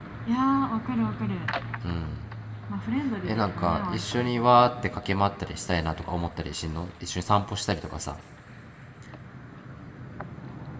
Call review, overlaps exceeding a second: present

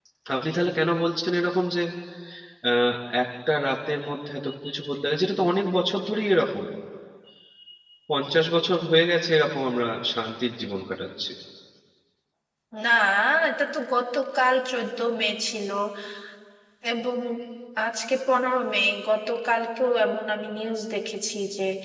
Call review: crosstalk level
none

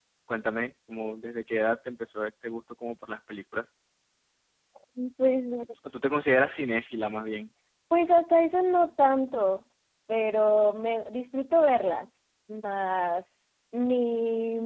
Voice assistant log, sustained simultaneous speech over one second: none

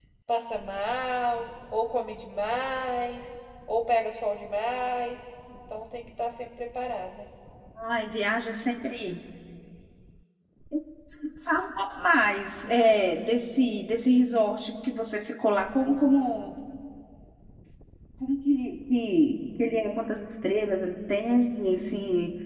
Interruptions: none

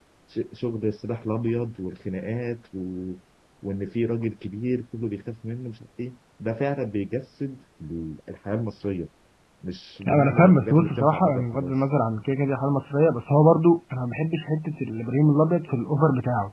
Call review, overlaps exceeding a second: present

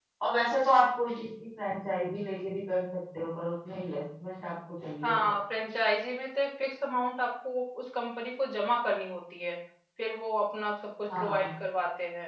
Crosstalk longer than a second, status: none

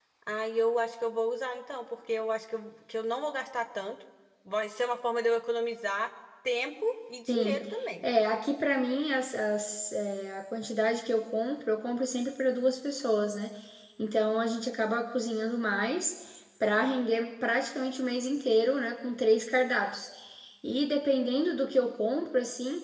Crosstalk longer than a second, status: none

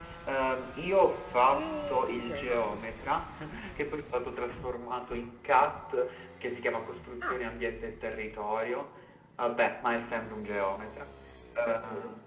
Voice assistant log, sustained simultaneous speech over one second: present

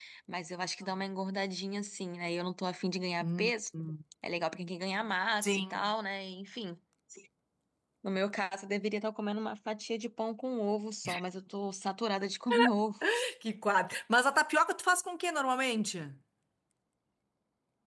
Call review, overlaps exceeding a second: none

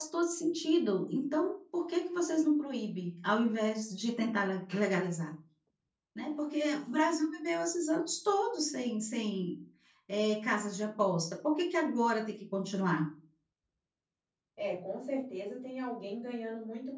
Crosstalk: none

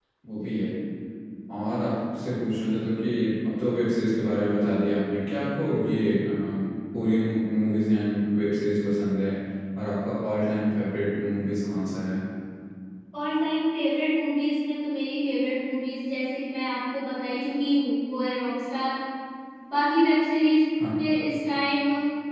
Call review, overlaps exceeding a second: none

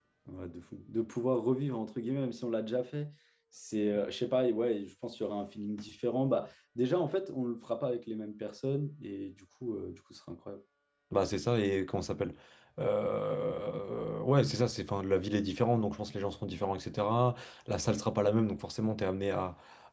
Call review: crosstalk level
none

